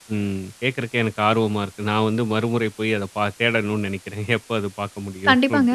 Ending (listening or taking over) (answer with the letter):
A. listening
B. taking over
B